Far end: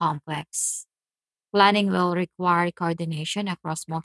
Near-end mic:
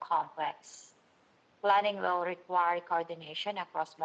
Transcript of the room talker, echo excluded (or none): none